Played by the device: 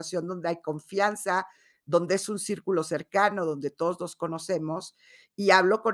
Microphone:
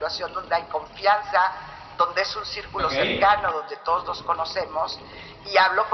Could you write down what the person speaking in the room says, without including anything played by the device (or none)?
Okey.